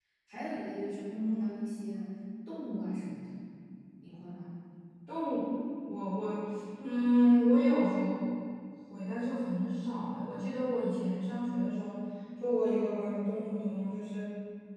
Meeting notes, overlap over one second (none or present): none